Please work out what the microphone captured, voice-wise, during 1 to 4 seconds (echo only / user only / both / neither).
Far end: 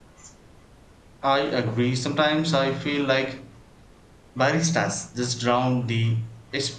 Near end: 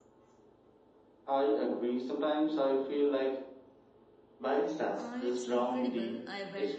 echo only